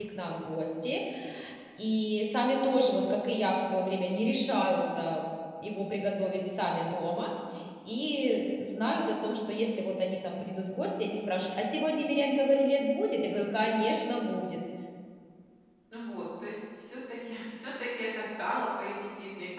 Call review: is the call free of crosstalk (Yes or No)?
Yes